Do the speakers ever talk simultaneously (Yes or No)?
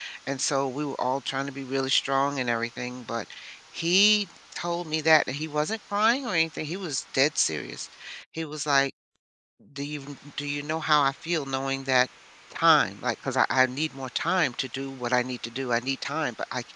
No